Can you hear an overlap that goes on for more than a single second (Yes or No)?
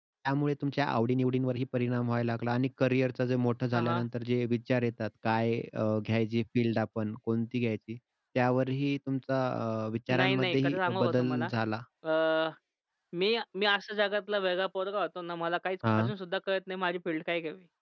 Yes